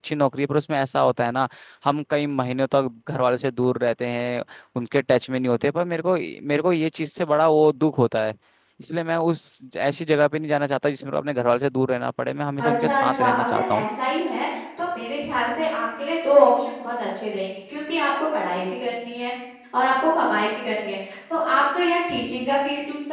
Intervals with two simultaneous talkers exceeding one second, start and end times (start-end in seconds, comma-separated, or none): 12.6-13.8